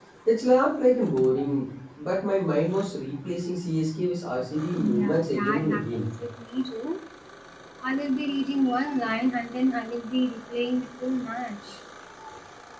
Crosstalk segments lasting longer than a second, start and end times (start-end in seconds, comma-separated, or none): 4.8-6.1